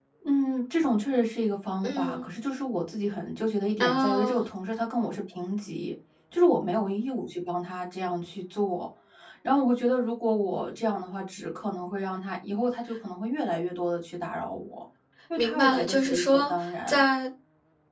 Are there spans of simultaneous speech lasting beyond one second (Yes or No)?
Yes